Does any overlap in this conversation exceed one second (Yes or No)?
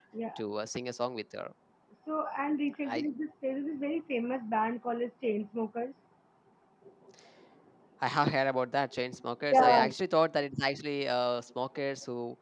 No